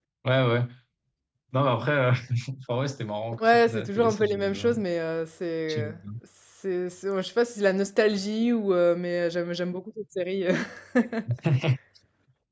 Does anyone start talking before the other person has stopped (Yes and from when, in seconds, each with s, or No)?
Yes, from 3.4 s